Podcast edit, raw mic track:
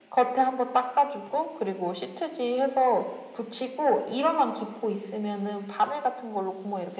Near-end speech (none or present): none